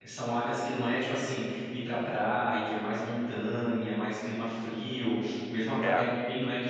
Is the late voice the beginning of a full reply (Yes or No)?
No